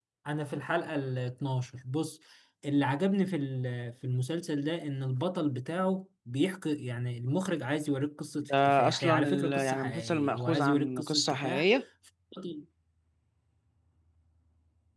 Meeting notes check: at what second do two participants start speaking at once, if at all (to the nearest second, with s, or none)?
8 s